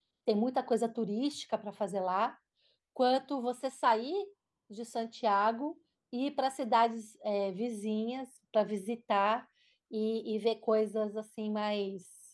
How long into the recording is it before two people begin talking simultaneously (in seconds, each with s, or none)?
none